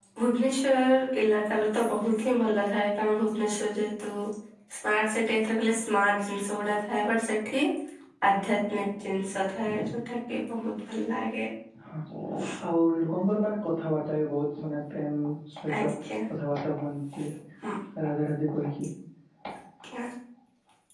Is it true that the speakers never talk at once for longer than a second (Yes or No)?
Yes